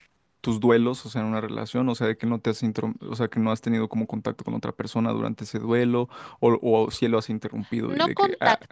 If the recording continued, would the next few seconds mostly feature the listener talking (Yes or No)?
Yes